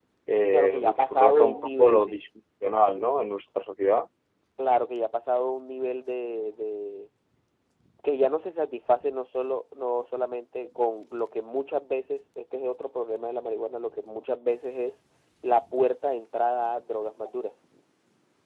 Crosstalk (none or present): present